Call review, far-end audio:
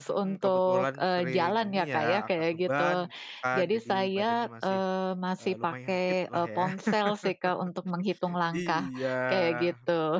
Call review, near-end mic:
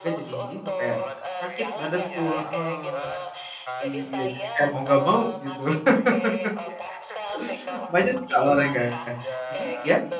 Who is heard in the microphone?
both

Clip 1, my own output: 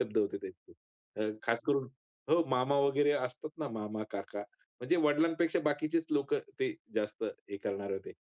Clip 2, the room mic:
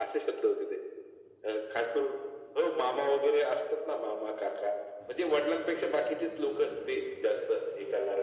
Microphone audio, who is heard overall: echo only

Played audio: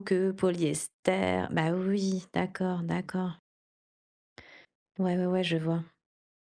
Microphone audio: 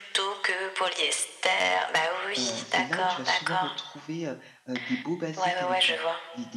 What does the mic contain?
both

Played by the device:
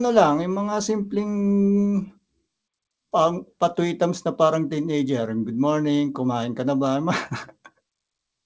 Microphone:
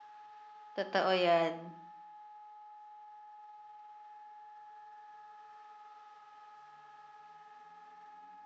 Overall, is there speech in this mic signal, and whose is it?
user only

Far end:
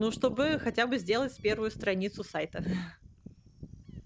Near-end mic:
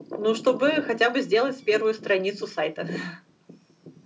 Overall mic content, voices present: echo only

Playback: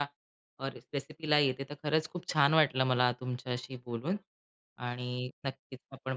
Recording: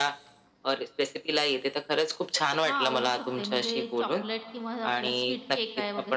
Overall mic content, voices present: both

